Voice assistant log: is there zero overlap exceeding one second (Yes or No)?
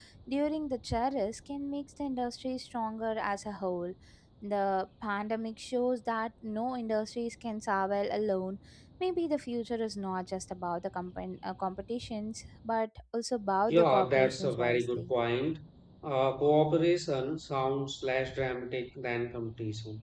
No